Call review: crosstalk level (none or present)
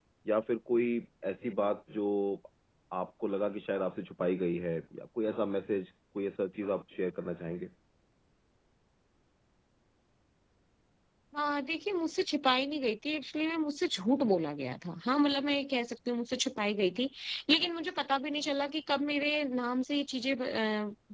none